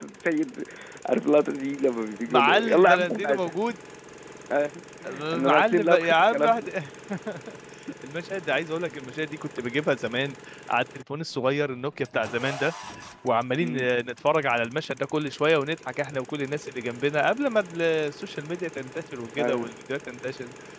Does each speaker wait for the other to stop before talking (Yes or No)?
No